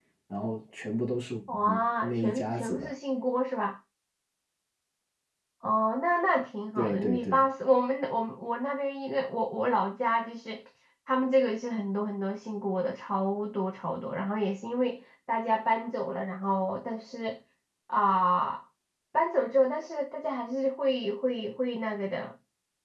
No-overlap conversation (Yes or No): No